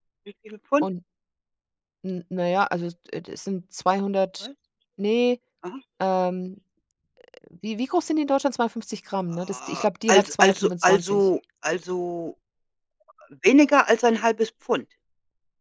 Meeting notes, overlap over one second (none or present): present